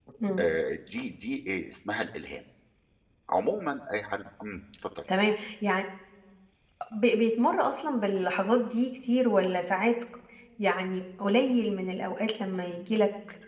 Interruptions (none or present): none